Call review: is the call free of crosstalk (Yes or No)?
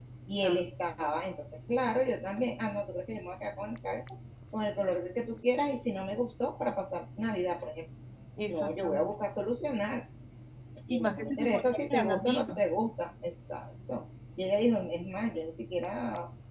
No